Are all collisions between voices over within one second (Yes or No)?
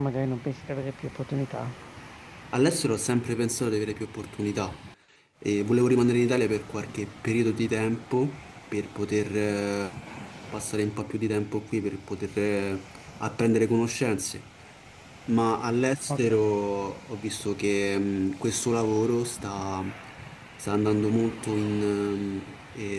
Yes